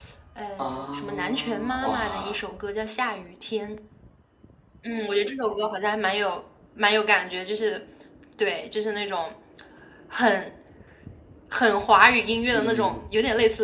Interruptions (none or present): present